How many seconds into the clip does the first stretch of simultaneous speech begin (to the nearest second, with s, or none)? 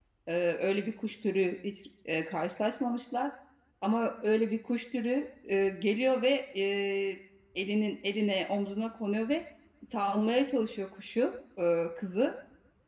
none